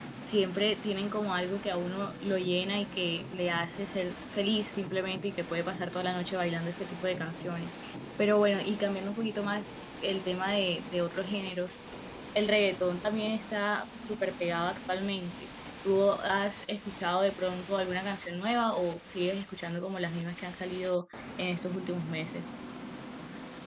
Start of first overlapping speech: none

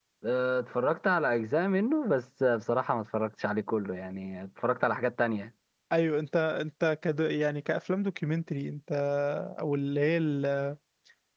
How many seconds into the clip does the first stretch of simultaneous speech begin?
none

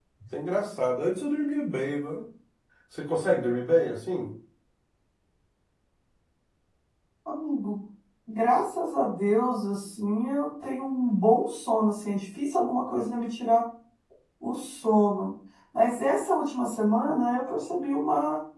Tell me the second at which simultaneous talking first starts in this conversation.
none

